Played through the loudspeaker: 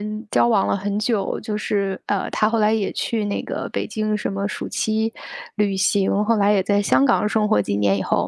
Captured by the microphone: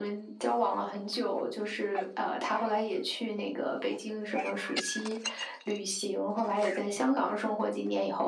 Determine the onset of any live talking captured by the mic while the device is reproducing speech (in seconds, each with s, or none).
none